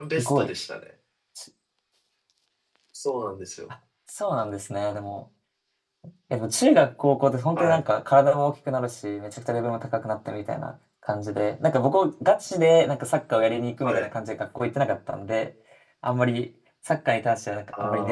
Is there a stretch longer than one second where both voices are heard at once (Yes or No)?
No